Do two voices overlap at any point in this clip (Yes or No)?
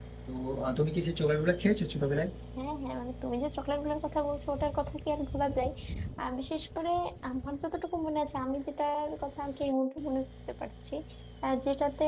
No